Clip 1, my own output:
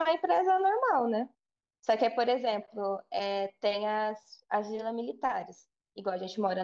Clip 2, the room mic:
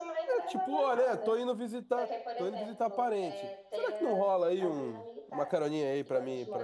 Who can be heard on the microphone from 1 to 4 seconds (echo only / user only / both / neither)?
both